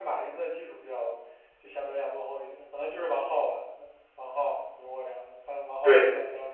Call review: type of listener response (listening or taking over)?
taking over